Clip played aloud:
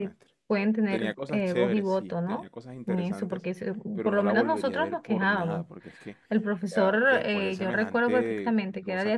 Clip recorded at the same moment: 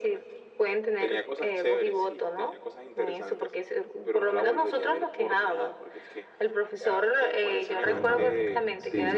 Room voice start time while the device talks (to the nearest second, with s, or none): 8 s